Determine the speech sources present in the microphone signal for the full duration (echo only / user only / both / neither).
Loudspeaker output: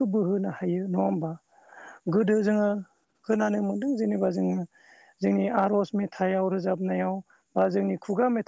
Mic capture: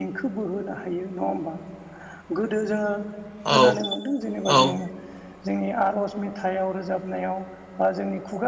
both